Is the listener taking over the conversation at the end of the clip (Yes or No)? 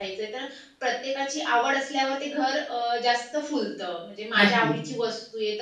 No